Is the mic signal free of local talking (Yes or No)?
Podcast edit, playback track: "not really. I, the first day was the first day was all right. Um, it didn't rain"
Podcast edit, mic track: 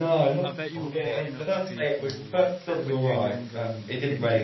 No